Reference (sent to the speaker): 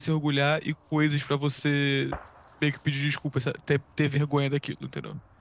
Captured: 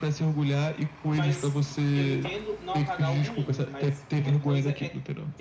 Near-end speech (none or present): present